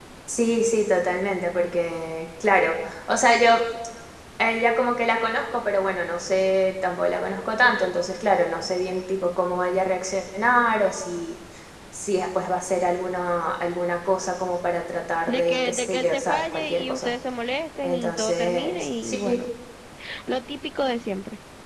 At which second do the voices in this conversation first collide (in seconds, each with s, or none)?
15.3 s